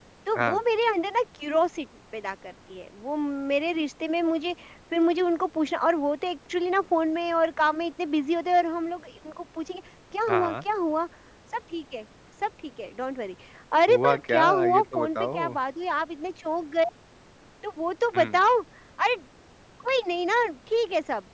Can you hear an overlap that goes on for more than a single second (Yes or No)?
Yes